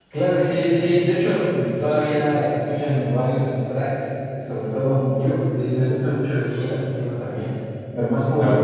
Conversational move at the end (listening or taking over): taking over